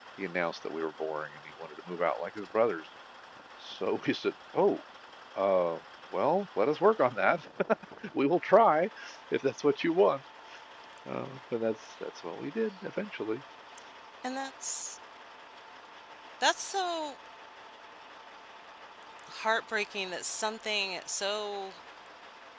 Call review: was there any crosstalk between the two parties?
No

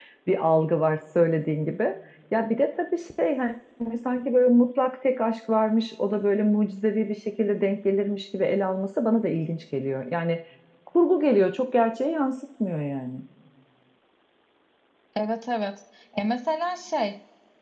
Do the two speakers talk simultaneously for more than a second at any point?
No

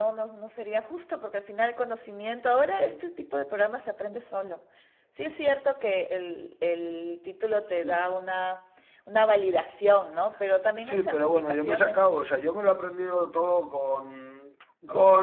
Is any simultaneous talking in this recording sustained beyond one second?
Yes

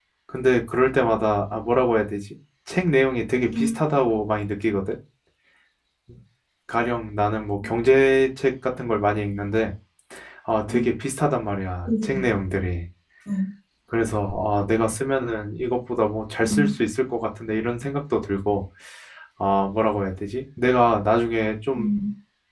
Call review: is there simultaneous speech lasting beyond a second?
No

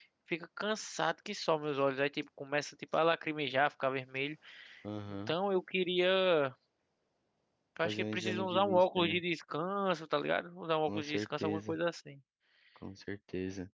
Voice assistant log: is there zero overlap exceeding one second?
No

